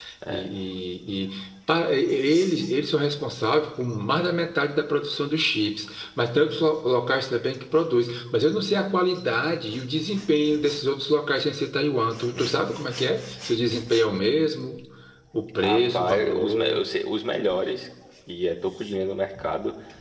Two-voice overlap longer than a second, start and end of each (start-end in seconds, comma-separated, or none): 15.6-16.8